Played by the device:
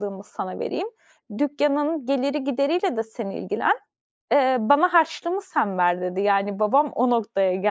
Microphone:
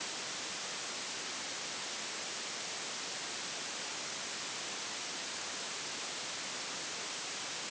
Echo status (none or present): none